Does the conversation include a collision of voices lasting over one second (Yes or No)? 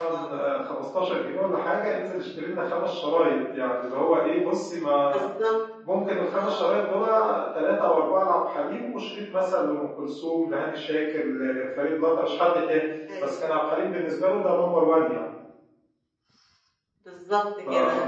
No